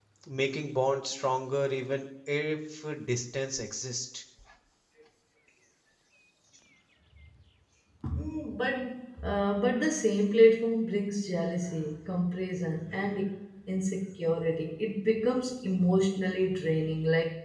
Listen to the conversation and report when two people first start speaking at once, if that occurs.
none

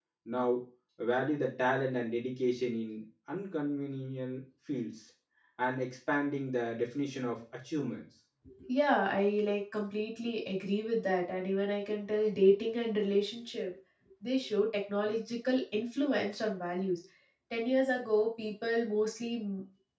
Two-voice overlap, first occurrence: none

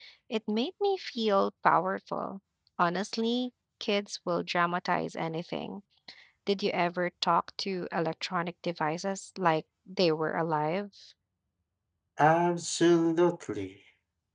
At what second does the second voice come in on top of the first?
none

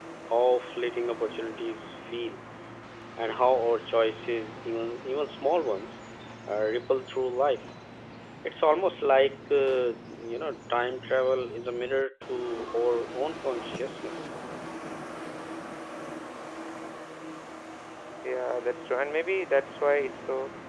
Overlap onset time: none

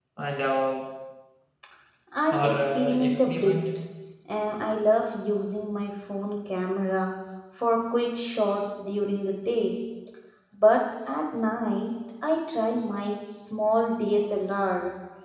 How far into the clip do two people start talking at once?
2.3 s

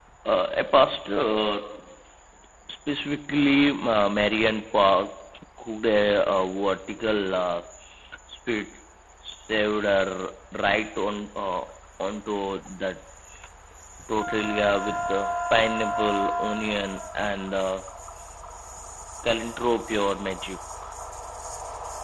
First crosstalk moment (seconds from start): none

